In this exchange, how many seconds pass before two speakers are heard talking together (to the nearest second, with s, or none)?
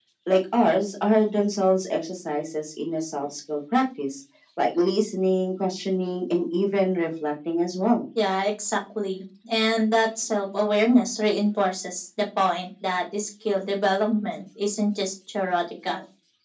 none